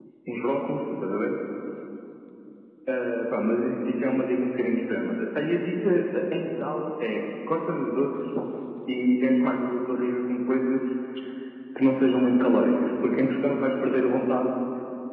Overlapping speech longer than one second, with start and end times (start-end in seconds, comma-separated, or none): none